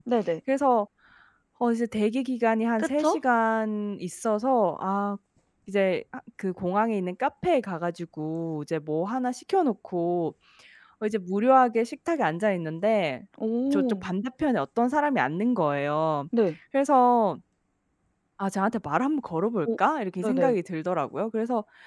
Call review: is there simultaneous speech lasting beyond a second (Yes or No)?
No